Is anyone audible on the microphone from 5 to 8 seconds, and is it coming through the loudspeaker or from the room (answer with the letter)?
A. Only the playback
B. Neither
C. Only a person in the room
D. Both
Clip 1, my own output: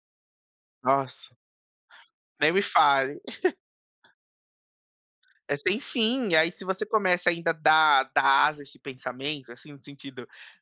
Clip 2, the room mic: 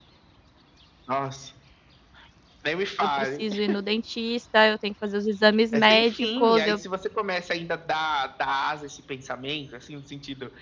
D